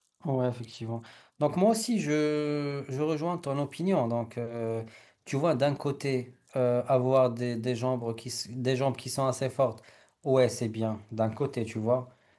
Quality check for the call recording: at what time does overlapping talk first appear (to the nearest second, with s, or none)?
none